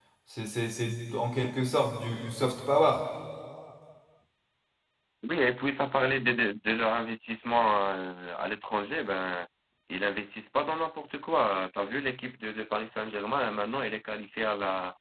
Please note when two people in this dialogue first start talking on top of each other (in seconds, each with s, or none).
none